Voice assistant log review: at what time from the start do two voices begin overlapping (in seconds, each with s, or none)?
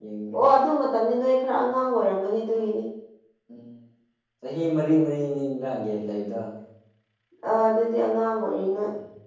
none